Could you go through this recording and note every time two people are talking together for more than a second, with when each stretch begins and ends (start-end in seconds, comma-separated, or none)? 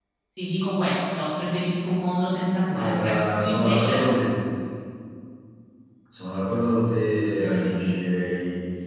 2.7-4.0